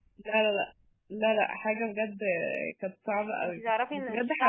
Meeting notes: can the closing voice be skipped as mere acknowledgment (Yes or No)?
No